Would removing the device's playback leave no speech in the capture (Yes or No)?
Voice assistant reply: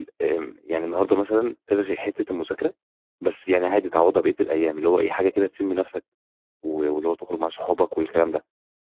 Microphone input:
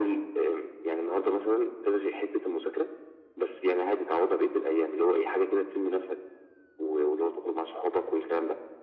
Yes